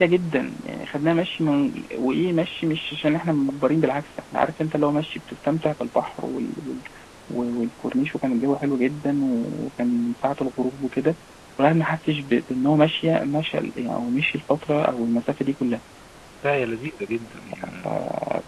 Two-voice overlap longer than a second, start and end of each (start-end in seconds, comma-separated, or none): none